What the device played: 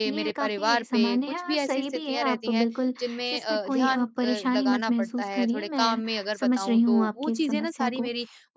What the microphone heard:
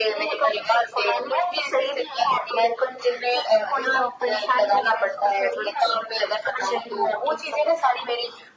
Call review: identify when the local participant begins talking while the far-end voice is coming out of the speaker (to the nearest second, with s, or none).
none